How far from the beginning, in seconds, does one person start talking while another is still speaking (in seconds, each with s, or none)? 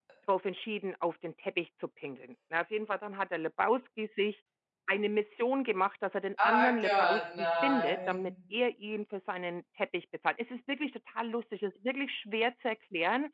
6.4 s